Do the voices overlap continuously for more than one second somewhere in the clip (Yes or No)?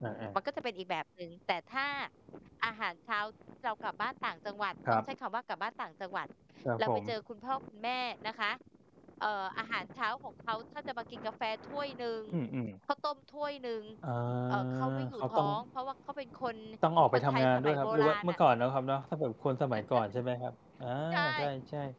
Yes